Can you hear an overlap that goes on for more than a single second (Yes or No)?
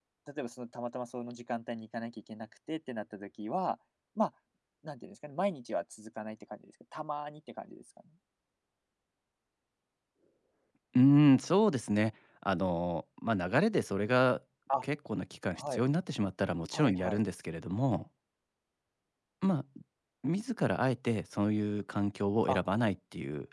No